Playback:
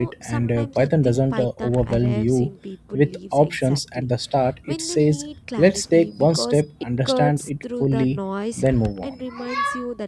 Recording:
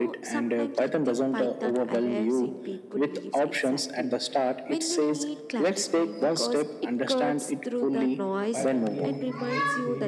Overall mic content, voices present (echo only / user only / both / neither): both